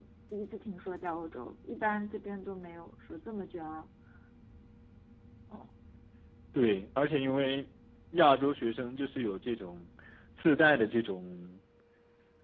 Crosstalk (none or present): none